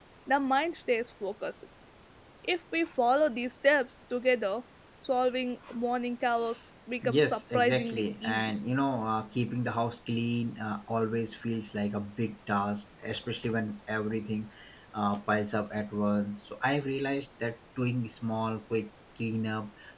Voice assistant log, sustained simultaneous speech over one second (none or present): present